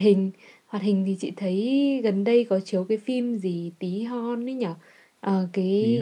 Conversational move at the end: listening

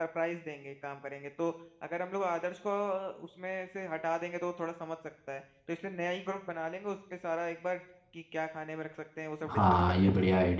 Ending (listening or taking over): taking over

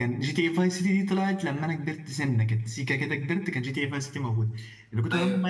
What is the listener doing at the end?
listening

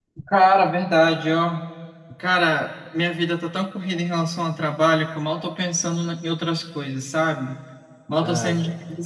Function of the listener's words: listening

